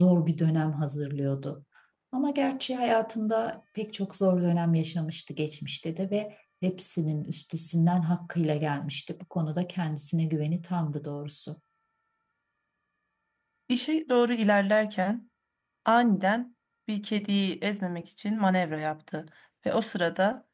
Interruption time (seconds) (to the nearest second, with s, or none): none